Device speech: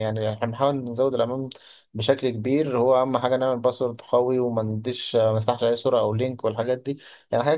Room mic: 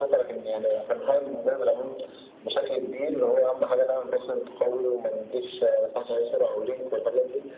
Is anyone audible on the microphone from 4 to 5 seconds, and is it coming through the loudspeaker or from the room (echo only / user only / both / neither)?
echo only